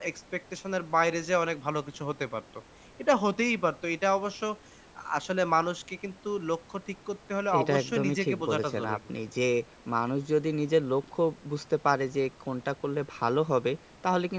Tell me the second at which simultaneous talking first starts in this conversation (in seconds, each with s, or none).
7.5 s